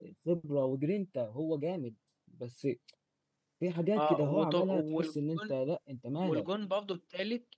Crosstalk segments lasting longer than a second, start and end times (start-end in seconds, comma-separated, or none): 4.0-5.5